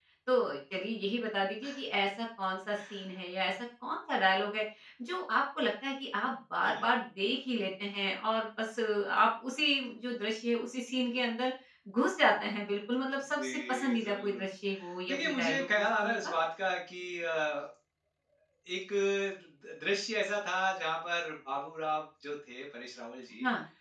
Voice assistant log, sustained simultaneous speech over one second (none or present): present